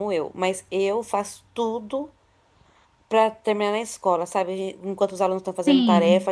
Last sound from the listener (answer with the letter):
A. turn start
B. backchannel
B